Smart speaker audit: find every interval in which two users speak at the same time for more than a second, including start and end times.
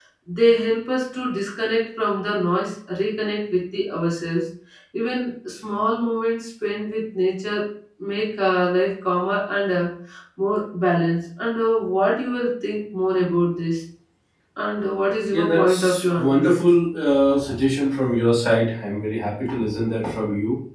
15.3-16.5

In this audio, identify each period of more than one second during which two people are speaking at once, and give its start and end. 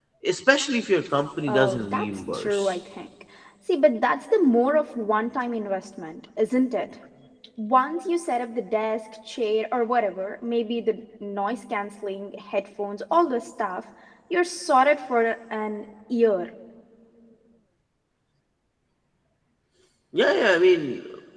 1.5-2.8

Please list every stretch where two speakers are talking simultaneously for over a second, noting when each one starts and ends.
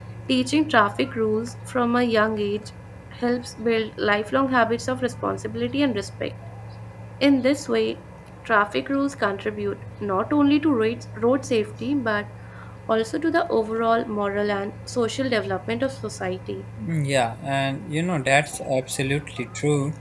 none

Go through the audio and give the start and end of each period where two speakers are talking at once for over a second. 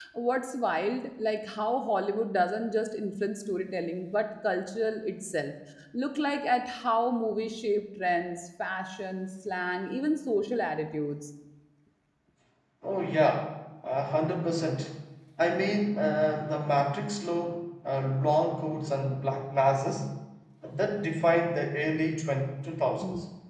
none

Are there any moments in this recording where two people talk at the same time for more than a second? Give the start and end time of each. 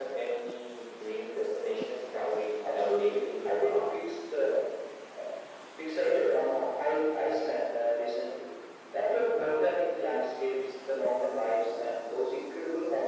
2.6-3.9

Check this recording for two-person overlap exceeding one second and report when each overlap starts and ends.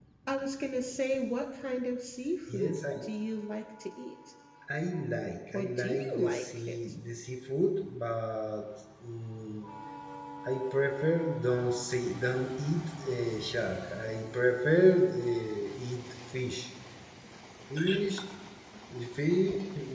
5.5-6.8

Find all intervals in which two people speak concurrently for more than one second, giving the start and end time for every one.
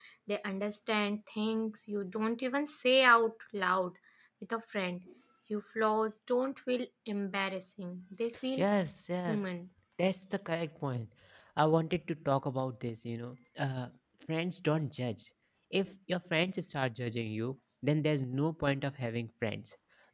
none

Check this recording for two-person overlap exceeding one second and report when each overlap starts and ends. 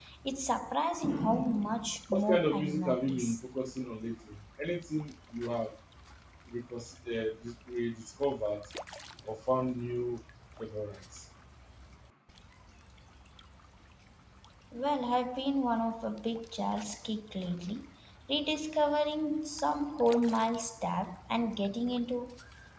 2.1-3.4

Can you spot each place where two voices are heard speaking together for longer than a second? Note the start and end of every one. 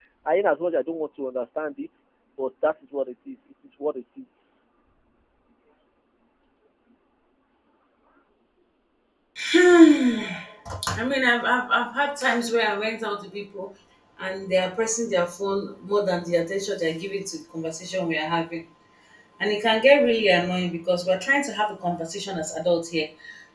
none

